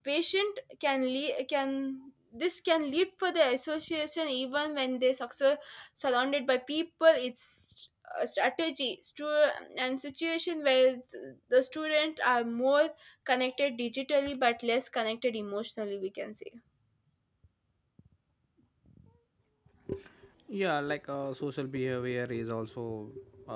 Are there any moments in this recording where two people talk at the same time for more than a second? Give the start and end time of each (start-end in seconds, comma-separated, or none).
none